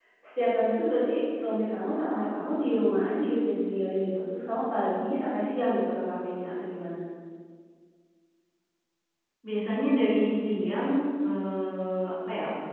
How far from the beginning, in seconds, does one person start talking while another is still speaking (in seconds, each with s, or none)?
none